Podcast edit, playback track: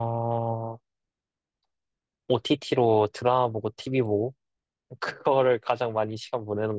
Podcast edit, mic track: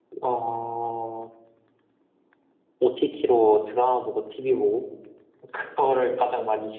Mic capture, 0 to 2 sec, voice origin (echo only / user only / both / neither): echo only